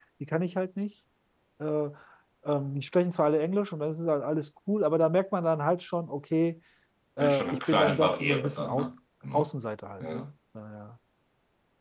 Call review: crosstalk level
present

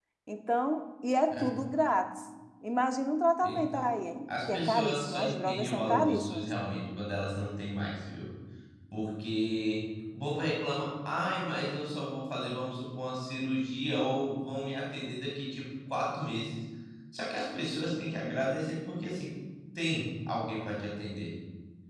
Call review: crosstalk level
present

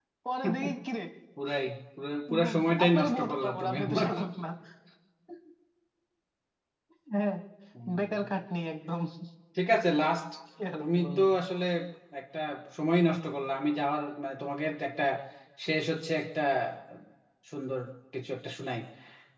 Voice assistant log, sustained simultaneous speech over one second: present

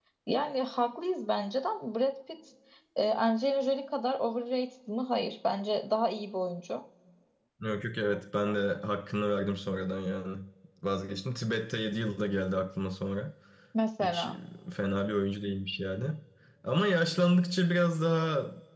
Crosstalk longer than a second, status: none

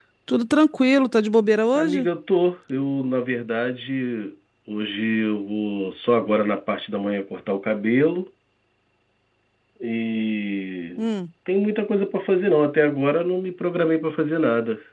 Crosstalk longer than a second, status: none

